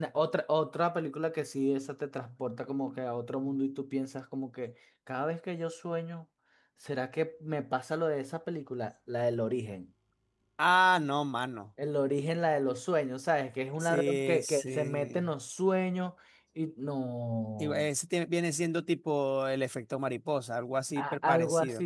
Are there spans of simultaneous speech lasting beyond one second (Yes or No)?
Yes